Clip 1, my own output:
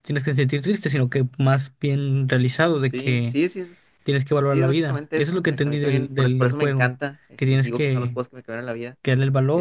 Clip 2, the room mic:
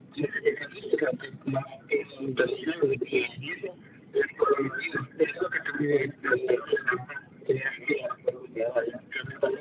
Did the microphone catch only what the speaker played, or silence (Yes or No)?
Yes